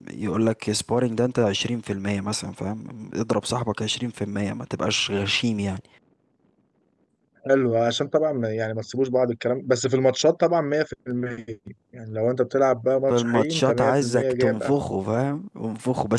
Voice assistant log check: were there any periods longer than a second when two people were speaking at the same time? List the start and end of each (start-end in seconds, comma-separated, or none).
13.1-14.7